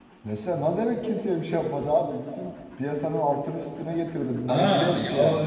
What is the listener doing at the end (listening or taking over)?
taking over